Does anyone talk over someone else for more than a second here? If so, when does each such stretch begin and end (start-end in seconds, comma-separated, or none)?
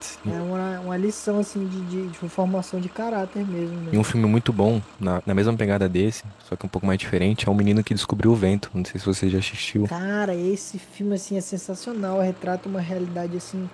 none